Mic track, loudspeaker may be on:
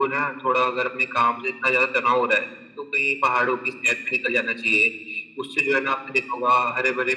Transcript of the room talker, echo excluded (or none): none